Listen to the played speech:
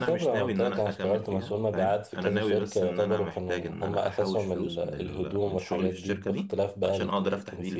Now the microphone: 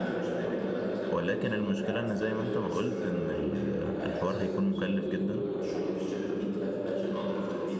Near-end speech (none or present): present